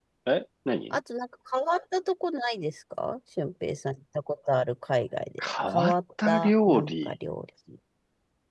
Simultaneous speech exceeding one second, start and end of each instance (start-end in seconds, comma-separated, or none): 5.7-7.1